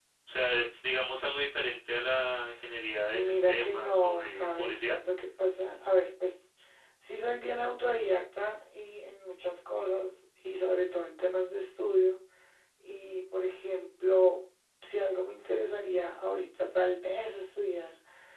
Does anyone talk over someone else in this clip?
Yes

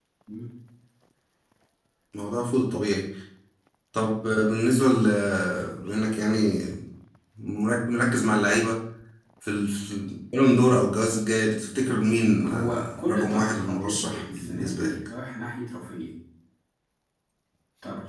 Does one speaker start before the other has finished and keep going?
Yes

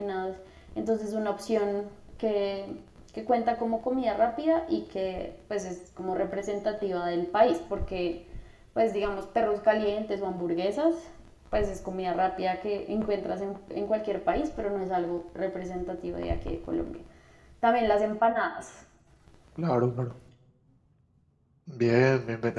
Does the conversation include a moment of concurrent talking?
No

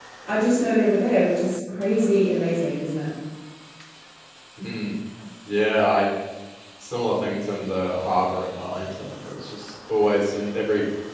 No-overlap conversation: Yes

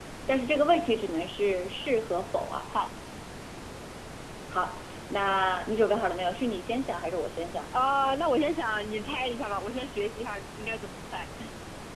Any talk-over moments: No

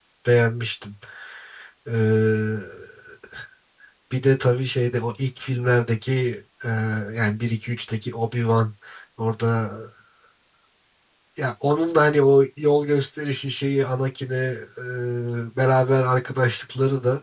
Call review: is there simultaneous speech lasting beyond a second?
No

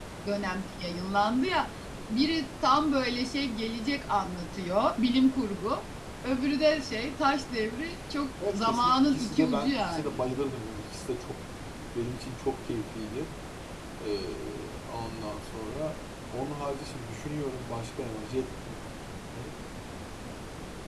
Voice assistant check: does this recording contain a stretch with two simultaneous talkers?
Yes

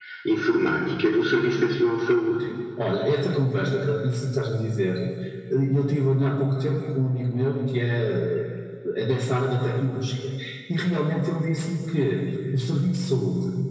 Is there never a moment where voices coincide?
Yes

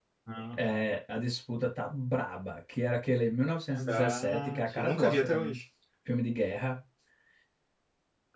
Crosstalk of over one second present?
Yes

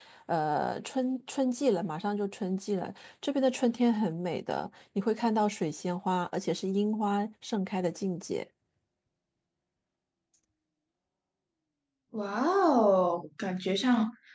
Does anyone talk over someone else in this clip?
No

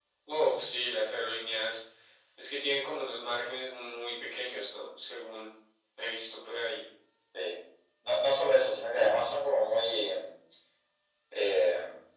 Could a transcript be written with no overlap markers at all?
Yes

